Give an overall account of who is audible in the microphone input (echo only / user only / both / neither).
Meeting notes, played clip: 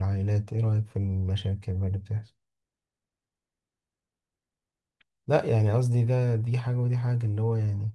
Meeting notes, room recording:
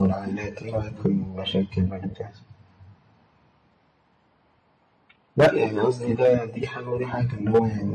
echo only